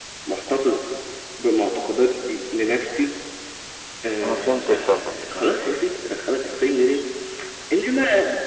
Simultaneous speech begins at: 4 s

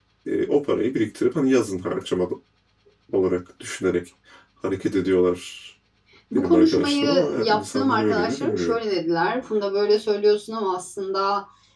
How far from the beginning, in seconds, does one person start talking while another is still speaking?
6 s

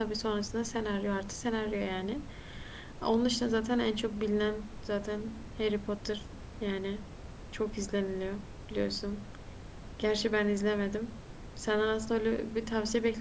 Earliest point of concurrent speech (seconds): none

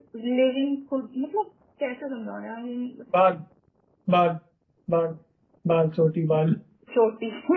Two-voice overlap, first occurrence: none

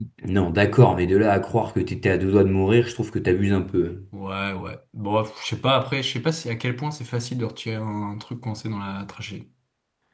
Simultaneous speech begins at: none

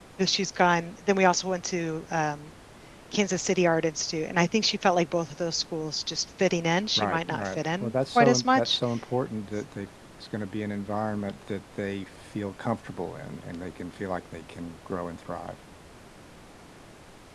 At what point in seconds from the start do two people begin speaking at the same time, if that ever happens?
7 s

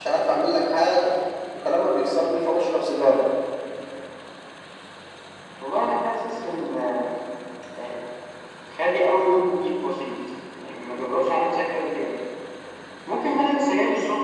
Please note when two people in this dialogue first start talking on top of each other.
none

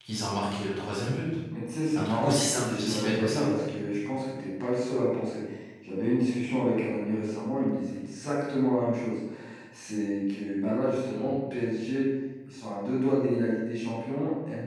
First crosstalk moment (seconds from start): 2 s

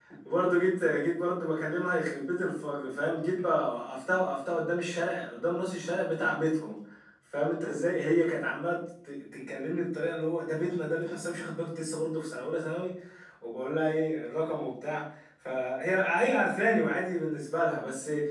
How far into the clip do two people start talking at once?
none

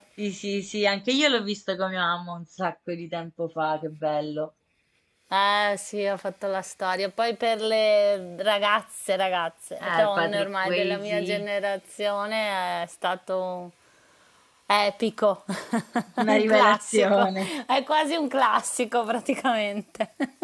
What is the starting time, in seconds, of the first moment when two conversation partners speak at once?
10 s

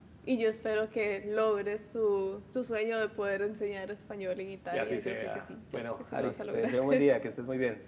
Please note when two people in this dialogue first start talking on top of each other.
5 s

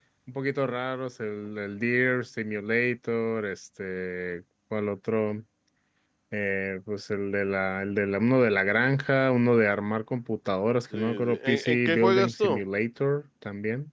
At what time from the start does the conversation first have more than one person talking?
11 s

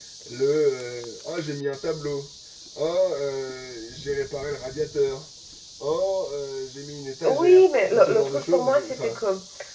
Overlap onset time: 7 s

